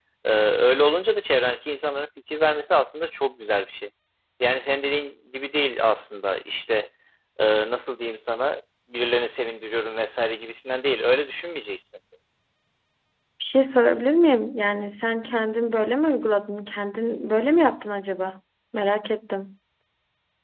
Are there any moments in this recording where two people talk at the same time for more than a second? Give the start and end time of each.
none

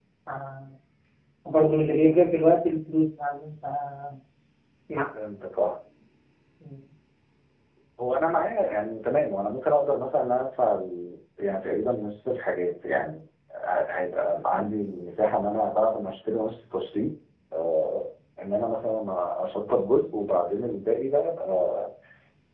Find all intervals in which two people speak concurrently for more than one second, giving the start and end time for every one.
none

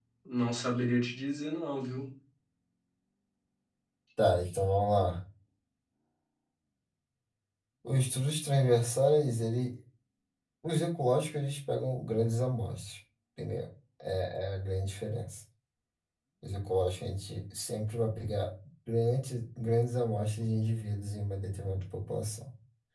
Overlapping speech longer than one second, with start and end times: none

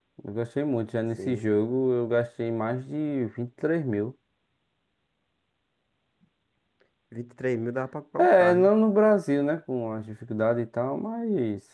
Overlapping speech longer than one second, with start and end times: none

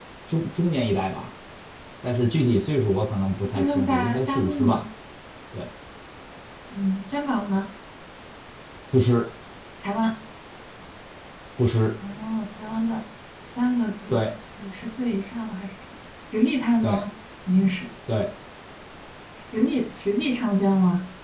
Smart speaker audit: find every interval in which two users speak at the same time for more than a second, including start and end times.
3.5-4.8

